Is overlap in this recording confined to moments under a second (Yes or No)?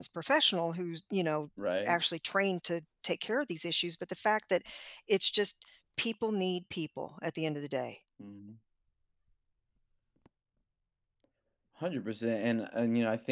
Yes